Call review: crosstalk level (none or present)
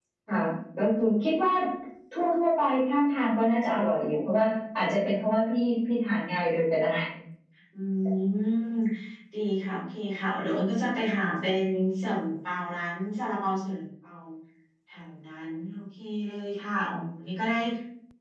none